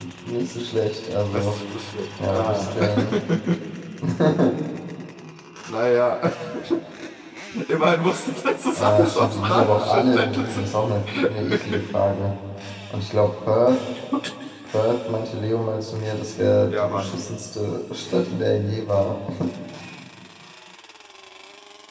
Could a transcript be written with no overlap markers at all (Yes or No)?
No